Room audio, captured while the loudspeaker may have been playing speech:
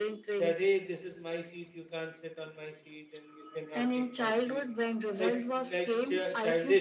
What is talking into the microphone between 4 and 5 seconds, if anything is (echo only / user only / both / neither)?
both